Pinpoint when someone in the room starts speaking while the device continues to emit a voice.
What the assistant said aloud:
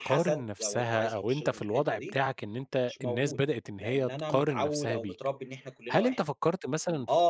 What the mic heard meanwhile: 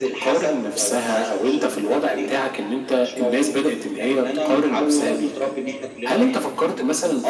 none

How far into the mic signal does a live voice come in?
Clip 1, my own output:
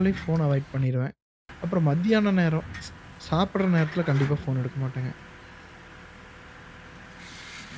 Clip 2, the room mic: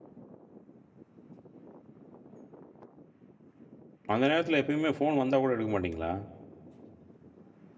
4.1 s

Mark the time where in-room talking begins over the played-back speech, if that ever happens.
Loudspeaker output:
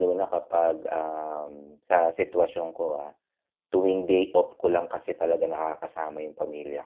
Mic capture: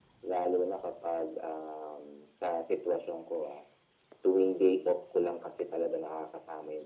none

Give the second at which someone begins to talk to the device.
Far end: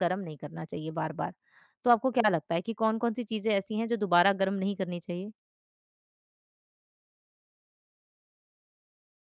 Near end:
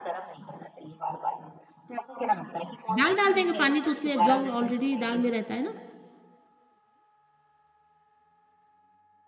2.9 s

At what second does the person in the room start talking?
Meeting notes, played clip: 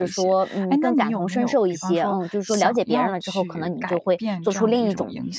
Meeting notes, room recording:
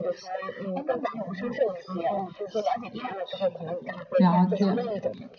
4.2 s

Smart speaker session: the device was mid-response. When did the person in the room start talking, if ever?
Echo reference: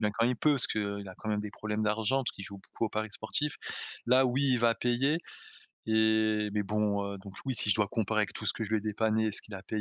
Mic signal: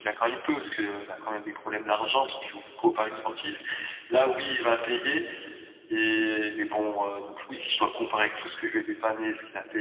none

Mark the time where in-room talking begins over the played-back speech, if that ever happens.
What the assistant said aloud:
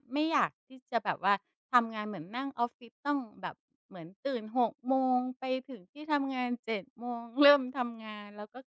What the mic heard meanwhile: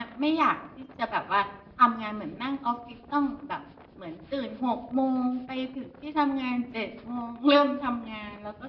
none

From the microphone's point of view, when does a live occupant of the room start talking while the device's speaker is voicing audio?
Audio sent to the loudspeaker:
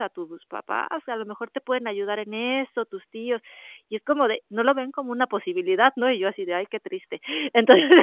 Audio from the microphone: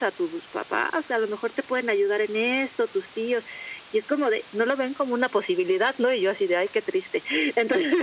none

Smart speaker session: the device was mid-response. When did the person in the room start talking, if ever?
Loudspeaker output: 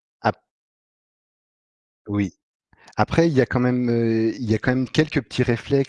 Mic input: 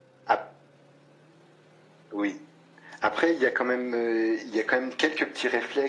none

